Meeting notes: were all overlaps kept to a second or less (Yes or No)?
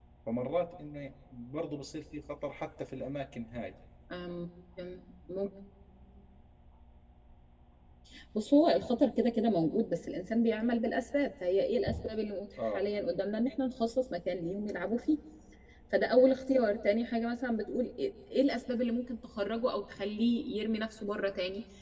Yes